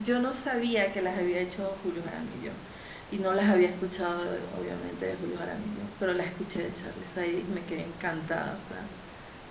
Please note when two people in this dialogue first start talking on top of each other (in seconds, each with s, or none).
none